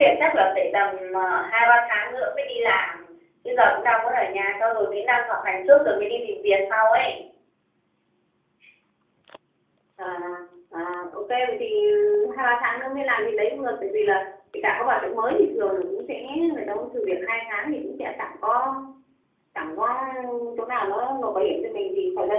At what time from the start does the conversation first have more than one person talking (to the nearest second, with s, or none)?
none